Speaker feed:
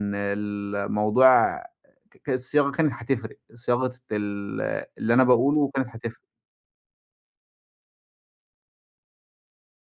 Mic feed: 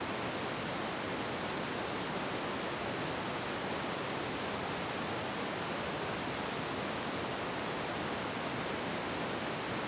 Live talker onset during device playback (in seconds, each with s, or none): none